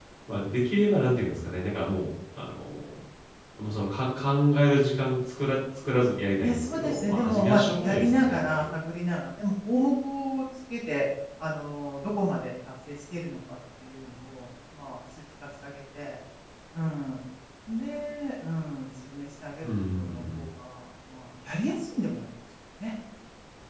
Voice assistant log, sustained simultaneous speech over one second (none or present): present